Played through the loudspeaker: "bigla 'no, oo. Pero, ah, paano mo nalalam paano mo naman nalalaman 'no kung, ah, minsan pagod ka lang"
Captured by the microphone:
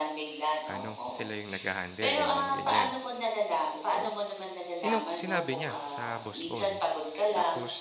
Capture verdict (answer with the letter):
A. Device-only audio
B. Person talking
B